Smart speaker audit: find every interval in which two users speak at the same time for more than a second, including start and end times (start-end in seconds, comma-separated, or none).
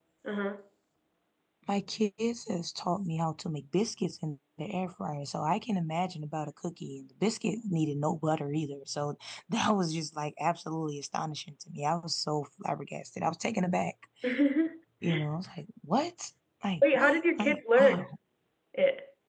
16.8-18.0